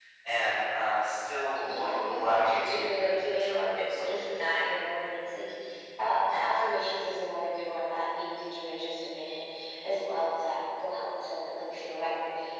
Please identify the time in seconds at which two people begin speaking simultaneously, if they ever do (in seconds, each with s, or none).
1.6 s